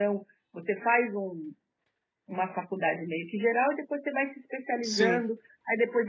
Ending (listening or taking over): listening